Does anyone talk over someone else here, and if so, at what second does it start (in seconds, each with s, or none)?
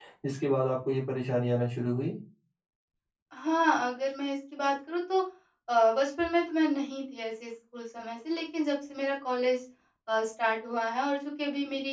none